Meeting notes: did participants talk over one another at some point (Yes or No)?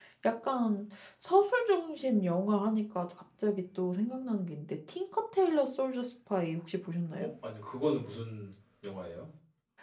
No